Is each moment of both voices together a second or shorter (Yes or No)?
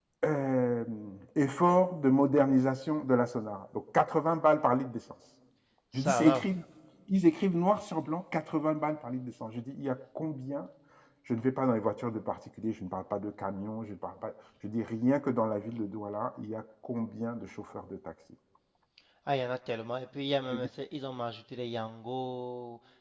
Yes